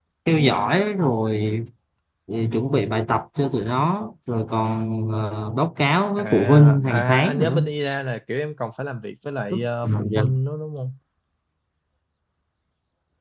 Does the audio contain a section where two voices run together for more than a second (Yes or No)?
Yes